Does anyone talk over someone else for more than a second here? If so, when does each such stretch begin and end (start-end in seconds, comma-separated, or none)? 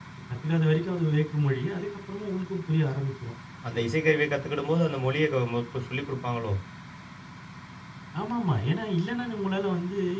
none